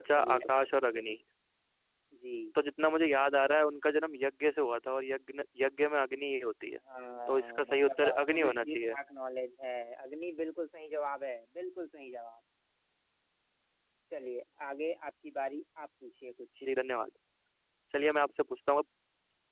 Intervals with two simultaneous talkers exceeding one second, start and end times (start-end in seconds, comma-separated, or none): 7.3-8.9